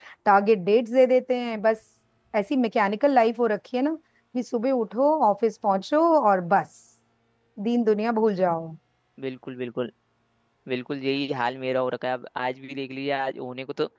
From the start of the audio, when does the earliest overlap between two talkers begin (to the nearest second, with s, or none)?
none